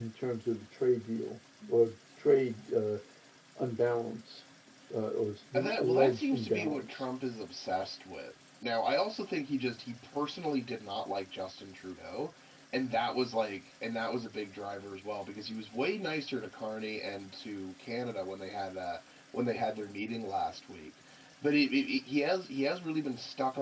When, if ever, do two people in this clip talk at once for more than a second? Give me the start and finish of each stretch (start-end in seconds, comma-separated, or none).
5.5-7.0